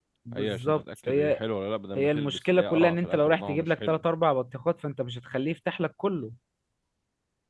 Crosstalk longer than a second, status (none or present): present